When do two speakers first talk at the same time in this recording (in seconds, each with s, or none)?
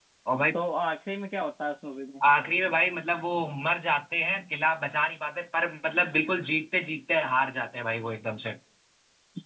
none